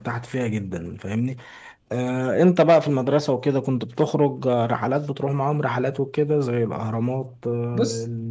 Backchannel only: Yes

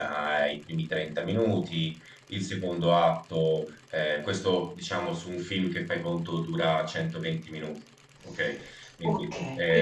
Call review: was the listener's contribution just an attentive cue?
No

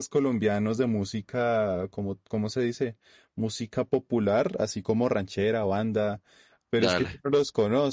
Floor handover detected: No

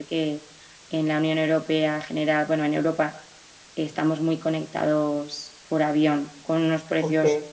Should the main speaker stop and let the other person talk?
No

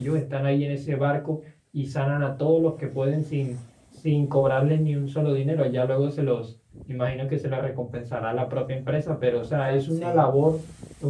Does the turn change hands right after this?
No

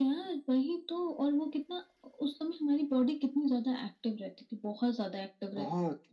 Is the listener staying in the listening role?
Yes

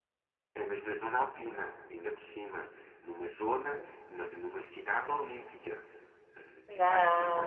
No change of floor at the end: Yes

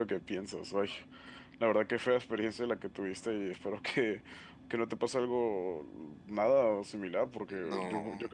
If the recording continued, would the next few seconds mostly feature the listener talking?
No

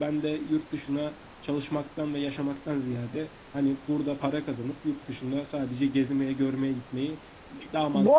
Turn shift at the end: Yes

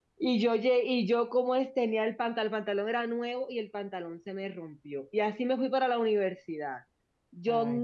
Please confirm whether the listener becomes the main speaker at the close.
No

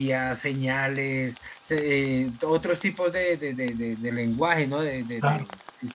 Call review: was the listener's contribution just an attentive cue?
No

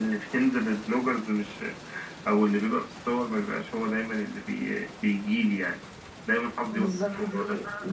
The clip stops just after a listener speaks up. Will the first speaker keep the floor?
No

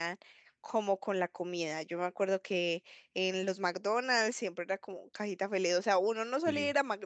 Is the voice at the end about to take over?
No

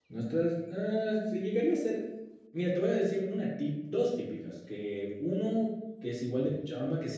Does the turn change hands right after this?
No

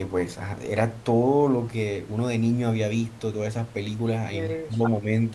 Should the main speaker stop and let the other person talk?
No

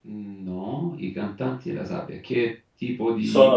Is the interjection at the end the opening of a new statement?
Yes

